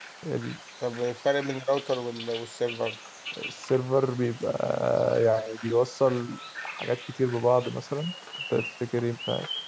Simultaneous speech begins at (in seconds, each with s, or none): none